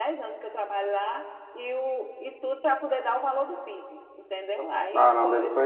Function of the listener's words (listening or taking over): taking over